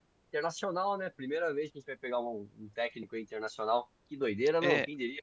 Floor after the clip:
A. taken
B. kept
A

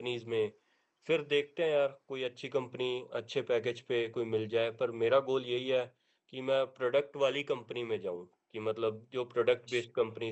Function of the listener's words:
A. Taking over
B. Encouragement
B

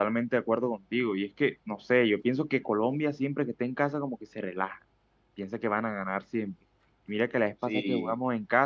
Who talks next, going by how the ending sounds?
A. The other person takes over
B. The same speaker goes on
B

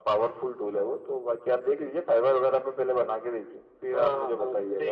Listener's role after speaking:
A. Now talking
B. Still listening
A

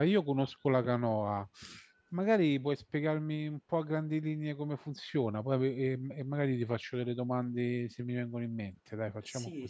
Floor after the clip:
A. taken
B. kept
A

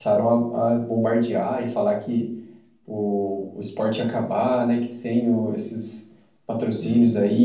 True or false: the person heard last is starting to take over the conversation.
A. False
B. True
A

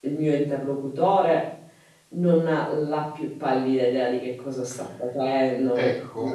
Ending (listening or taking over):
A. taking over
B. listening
A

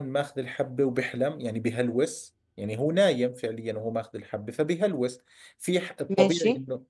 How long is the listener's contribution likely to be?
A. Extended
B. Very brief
B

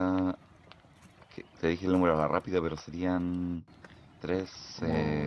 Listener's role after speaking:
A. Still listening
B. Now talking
B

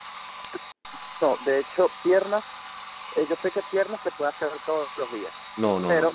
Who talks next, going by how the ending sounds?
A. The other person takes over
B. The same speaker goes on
A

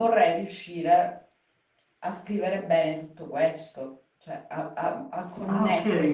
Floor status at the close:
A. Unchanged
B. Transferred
B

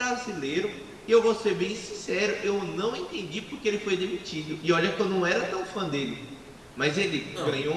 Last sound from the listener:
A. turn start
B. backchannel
B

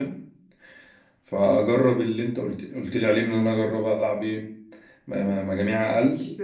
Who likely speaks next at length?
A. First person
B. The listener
B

